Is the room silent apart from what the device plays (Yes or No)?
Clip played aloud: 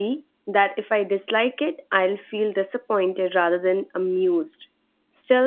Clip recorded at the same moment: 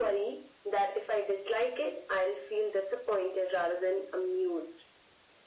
Yes